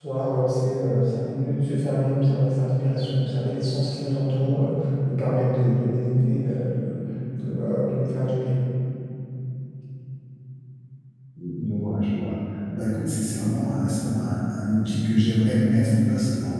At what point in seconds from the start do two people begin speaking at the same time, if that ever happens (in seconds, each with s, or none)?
none